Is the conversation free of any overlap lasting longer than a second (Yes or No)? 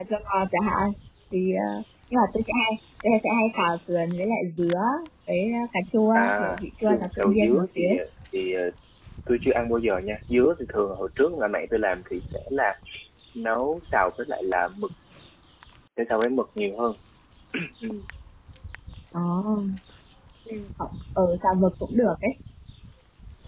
No